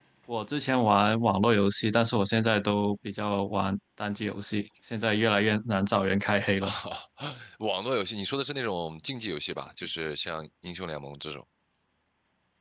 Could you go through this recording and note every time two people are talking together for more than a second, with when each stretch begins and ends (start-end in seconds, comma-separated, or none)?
none